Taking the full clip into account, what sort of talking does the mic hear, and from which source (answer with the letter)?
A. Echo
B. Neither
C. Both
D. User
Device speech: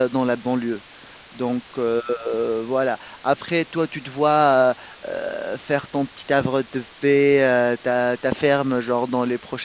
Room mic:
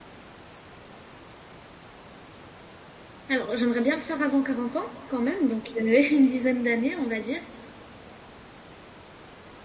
D